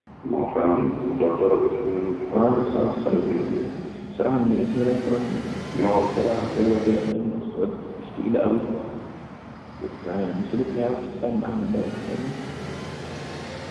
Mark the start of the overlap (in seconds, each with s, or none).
2.3 s